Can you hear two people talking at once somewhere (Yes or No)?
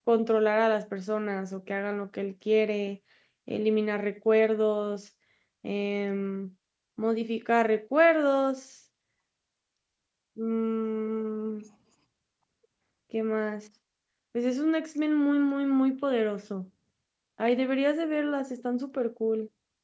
No